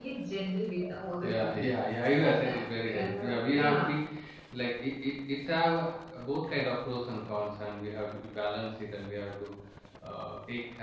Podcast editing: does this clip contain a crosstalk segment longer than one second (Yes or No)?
Yes